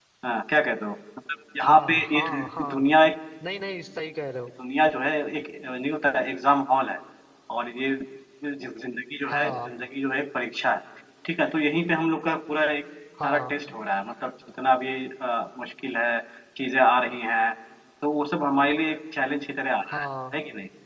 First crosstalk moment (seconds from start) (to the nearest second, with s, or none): 2 s